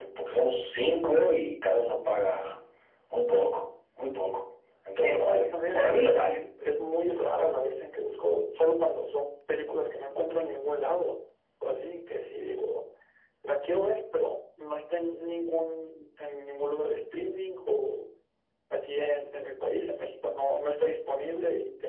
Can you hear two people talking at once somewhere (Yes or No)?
Yes